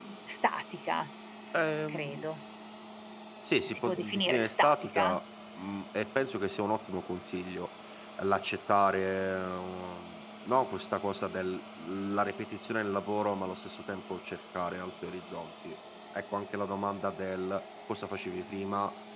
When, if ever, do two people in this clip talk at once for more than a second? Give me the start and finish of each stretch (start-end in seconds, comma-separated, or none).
3.6-5.2